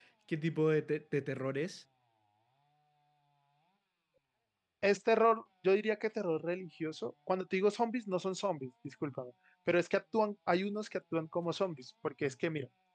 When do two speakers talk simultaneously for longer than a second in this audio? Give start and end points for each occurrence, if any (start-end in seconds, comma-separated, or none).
none